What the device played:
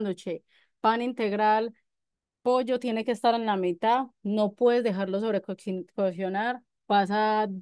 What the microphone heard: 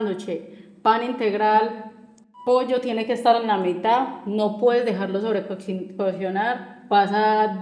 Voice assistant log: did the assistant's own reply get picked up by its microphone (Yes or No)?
Yes